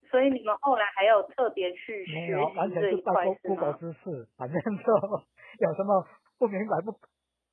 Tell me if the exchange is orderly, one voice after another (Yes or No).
No